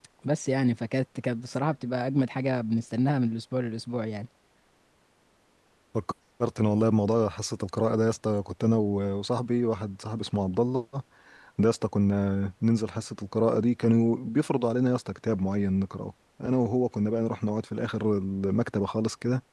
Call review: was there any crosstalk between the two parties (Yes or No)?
No